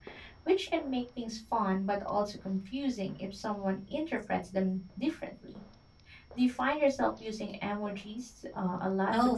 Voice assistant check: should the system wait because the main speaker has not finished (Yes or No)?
No